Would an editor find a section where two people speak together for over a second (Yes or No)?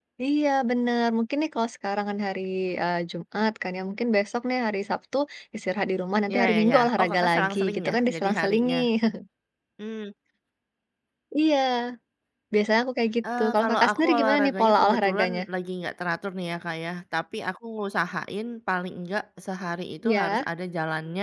Yes